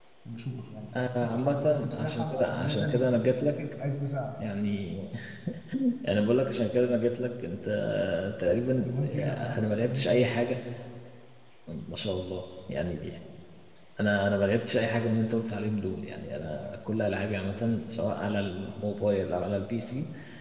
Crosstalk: present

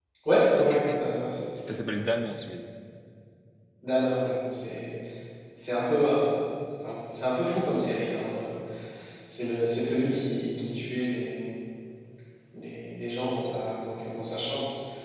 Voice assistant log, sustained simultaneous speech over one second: none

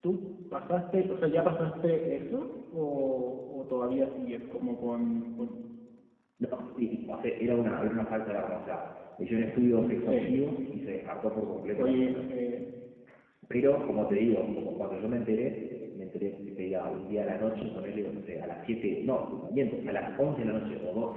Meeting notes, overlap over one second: none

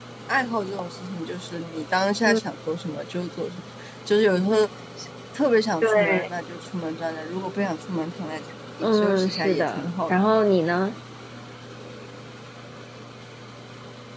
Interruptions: present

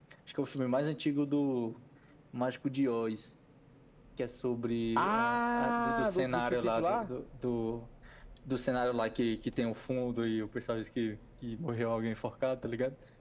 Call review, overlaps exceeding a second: present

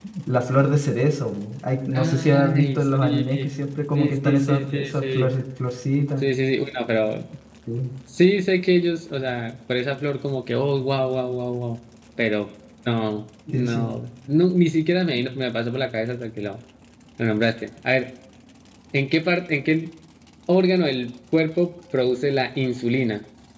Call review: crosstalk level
present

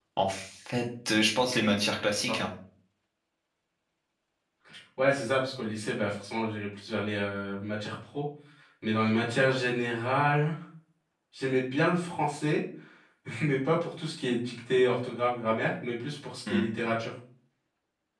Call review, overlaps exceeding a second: none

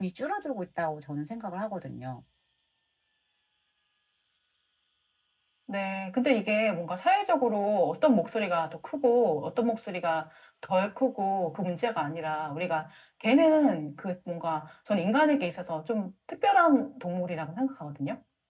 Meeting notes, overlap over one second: none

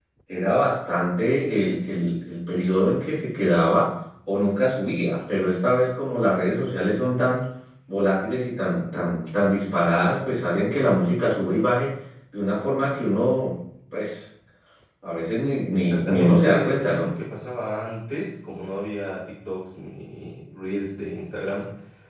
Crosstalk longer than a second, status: present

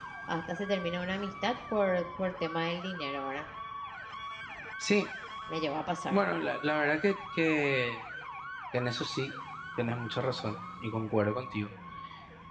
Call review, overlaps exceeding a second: none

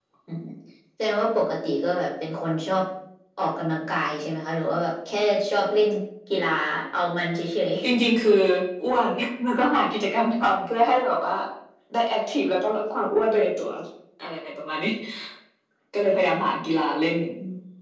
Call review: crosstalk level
none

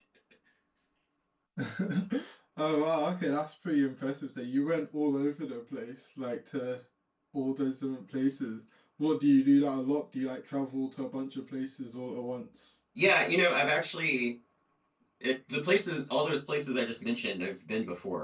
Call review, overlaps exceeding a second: none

